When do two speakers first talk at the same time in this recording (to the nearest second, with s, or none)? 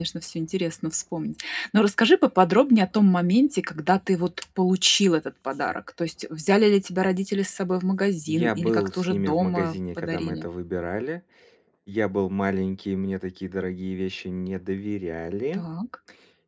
8 s